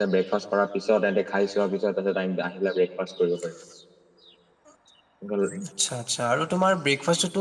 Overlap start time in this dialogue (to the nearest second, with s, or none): none